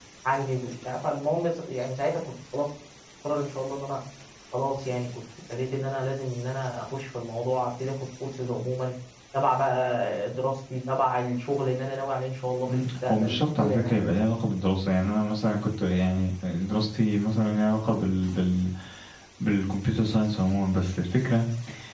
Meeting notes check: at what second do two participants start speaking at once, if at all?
12.7 s

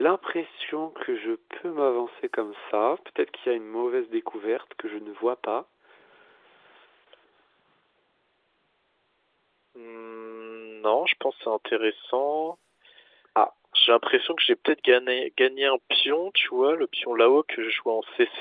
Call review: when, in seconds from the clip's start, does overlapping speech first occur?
none

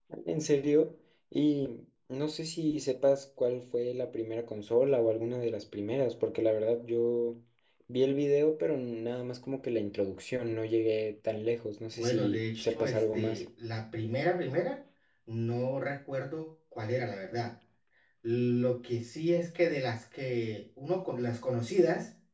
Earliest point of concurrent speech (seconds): 11.9 s

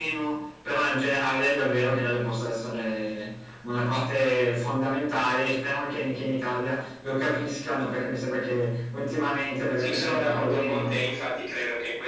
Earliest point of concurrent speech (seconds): 9.8 s

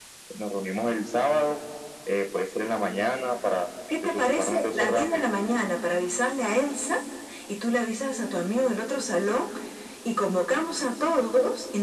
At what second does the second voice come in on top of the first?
3.9 s

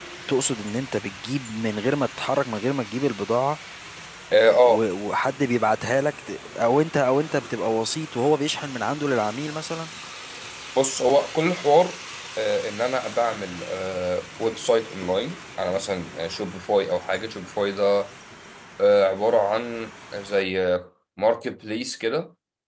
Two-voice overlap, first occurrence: none

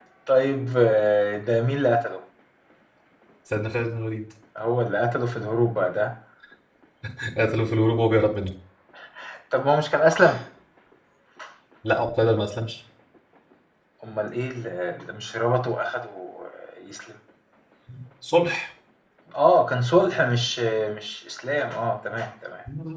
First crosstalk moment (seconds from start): none

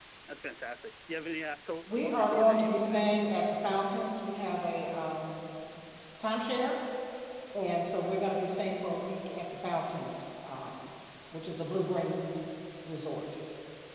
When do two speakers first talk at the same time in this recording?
1.9 s

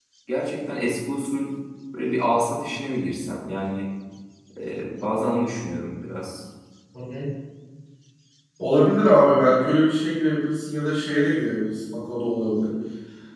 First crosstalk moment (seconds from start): none

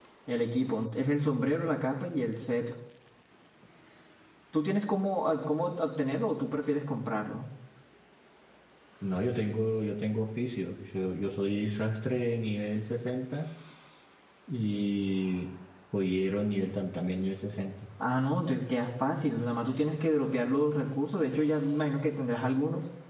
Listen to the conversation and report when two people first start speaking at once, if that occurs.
none

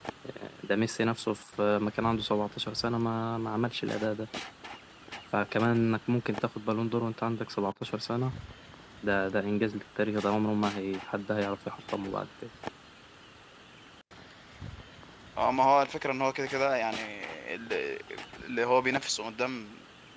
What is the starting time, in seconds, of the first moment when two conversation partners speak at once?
none

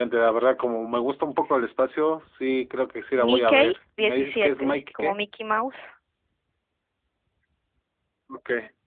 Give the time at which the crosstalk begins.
3.2 s

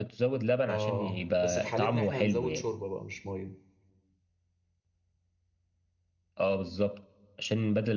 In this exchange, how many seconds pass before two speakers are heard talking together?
0.7 s

